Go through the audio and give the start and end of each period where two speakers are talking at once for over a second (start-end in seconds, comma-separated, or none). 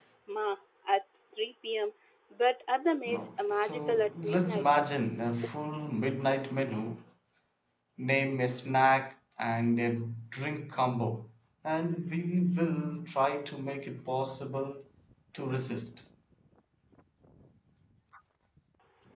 3.1-4.7